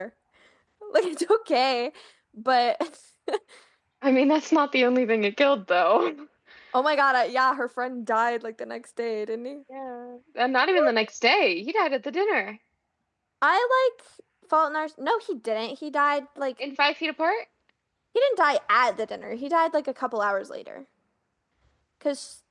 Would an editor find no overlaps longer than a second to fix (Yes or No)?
Yes